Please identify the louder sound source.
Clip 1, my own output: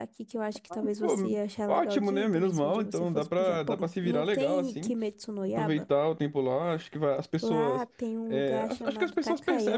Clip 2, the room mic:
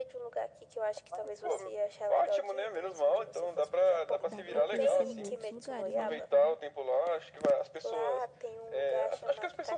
echo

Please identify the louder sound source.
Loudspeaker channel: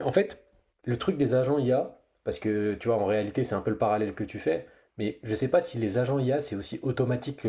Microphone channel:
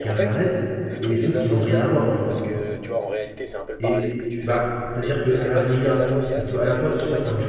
user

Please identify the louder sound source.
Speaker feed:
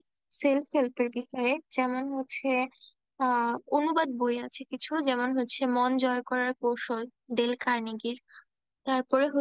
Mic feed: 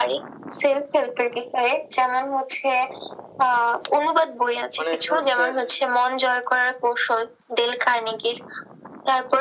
echo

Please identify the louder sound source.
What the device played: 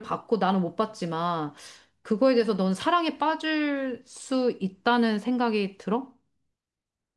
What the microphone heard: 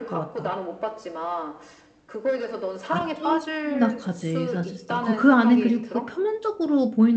user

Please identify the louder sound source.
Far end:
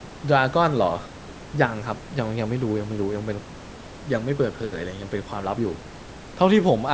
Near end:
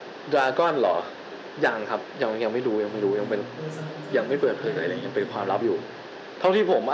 echo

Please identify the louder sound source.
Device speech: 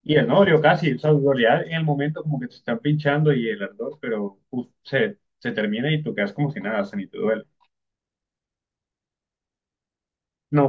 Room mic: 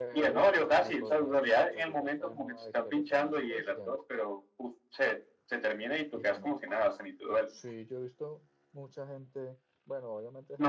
echo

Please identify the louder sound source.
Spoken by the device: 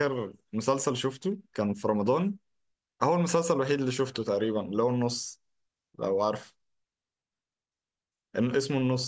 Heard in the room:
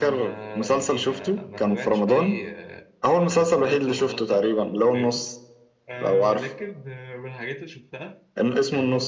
echo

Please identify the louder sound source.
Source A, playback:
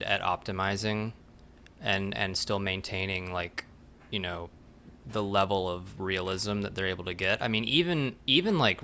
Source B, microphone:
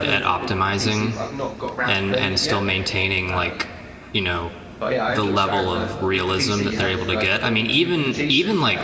echo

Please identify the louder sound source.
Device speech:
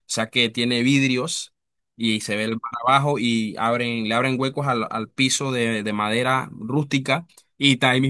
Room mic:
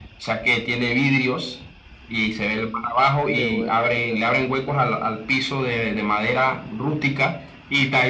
echo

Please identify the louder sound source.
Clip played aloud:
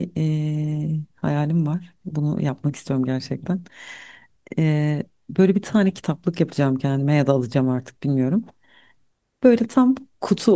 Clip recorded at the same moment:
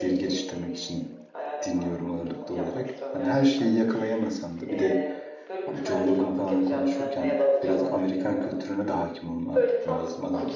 user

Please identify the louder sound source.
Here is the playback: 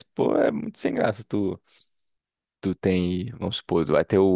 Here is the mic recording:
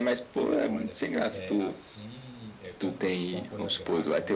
echo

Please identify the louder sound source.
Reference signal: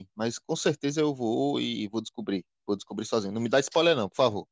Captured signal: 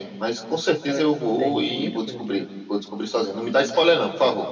echo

